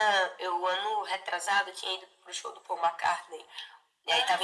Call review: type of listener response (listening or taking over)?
listening